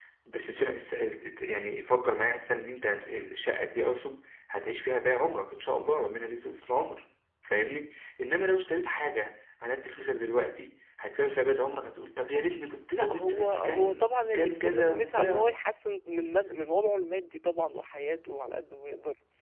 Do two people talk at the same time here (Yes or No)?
Yes